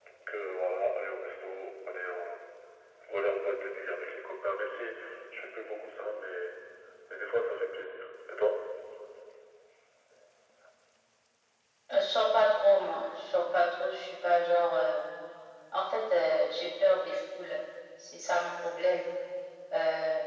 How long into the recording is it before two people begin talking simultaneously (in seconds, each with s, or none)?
none